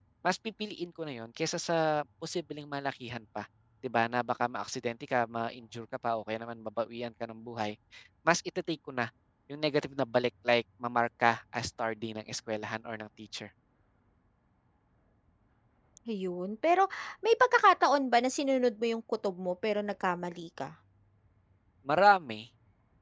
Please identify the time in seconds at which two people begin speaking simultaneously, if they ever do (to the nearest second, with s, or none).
none